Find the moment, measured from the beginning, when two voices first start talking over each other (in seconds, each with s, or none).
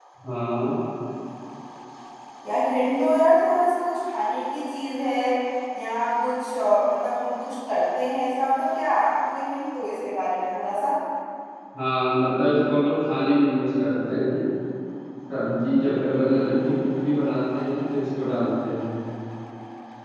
none